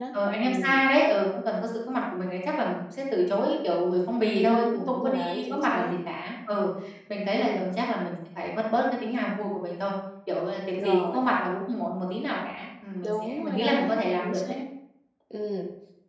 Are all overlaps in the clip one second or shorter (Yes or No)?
No